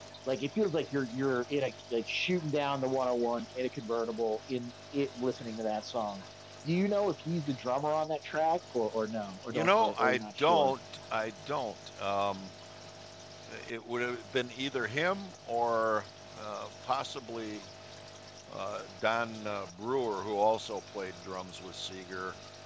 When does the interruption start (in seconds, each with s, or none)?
9.5 s